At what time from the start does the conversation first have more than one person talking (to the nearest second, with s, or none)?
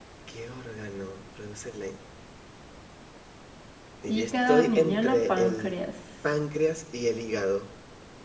4 s